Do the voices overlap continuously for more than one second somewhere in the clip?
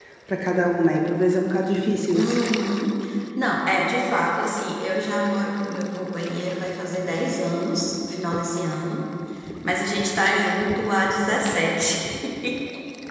No

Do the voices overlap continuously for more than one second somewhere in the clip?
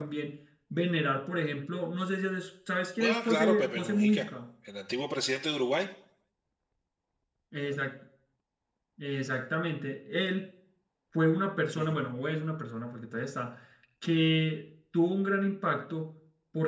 Yes, from 3.0 s

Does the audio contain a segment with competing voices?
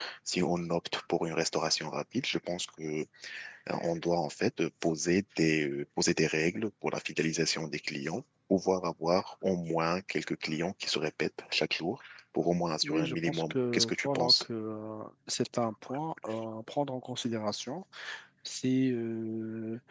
Yes, from 12.8 s

